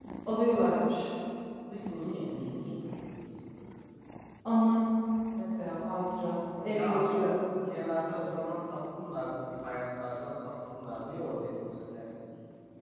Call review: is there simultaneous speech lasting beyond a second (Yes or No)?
Yes